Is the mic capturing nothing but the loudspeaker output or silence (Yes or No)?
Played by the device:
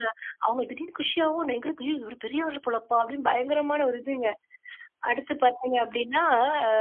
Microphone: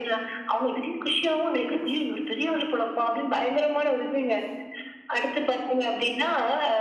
Yes